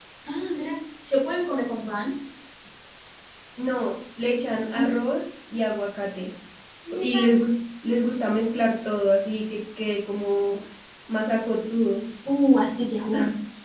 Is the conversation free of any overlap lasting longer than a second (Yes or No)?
Yes